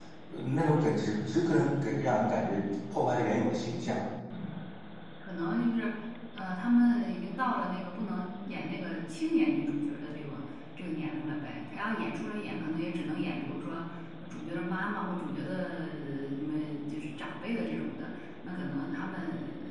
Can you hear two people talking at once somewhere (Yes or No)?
No